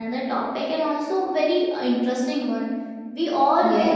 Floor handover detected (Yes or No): No